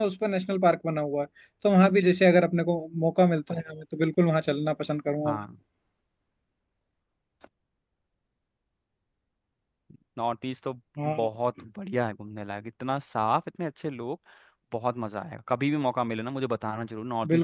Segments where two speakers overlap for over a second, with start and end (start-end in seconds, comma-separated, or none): none